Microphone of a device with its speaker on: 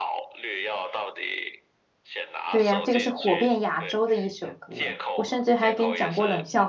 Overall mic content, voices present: both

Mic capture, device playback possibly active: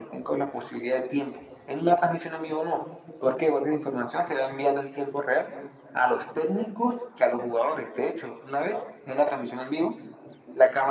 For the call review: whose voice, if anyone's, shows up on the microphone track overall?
echo only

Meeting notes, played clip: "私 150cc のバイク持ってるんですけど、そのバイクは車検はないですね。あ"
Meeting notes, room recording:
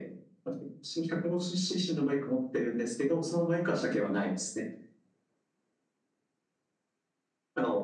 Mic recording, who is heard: echo only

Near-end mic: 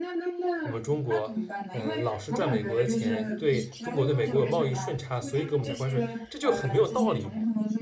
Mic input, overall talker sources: both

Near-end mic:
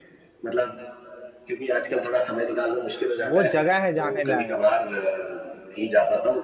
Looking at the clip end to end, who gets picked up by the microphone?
both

